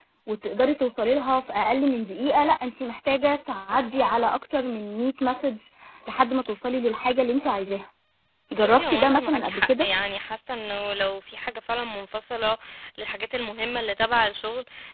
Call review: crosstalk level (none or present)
present